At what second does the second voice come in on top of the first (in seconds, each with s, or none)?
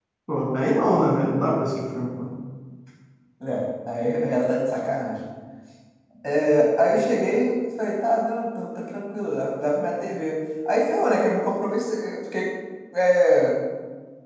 none